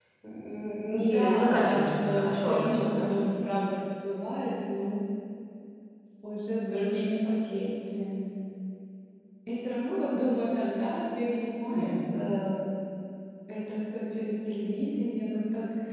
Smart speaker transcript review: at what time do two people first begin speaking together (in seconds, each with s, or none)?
1.1 s